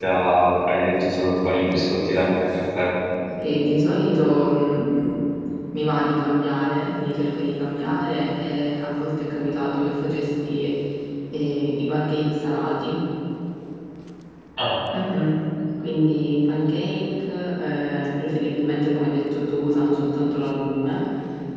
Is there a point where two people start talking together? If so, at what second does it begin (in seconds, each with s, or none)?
none